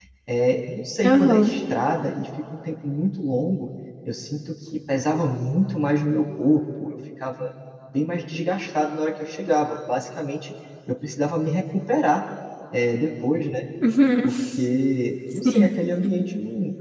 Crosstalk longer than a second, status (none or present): none